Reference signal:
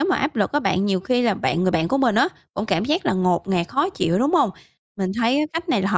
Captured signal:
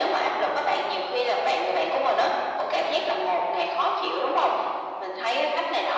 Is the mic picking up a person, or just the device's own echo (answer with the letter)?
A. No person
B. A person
A